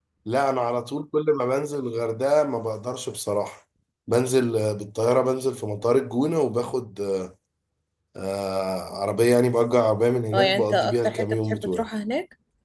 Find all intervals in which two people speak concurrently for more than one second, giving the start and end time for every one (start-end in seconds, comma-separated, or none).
10.3-11.9